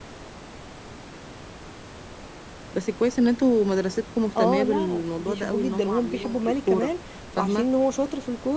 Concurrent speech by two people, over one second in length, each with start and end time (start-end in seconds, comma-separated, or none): 4.4-6.9